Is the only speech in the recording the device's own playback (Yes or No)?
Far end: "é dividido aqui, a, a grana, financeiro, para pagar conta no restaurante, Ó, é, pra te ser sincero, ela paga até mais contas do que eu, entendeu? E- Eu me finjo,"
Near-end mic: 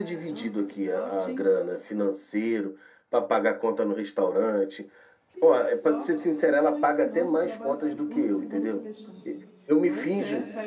No